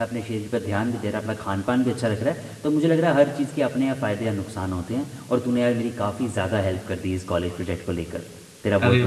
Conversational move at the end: taking over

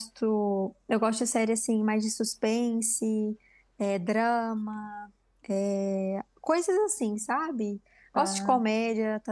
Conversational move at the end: listening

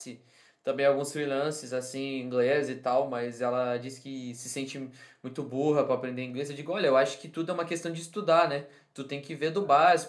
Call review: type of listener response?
listening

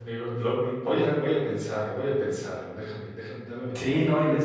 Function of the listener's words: taking over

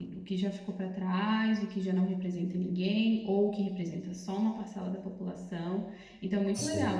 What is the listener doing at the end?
listening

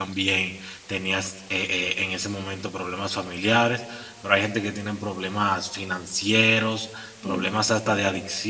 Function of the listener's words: listening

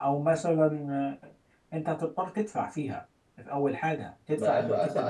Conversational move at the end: taking over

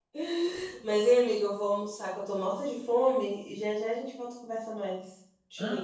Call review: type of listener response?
taking over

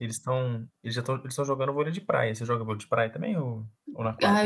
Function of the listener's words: taking over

